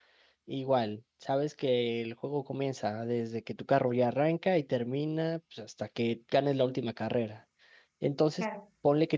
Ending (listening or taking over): listening